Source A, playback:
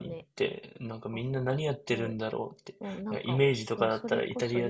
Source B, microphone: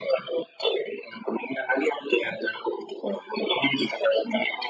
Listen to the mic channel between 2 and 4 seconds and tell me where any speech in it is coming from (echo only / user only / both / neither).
echo only